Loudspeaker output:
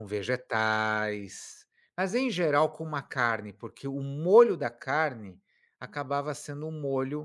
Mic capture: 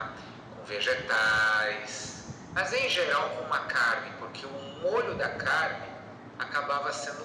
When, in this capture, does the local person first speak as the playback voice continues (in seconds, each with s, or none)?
none